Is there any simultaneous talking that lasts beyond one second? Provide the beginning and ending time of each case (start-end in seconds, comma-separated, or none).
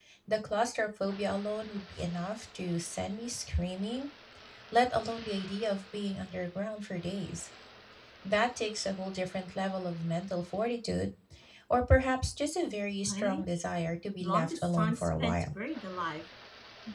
14.2-15.4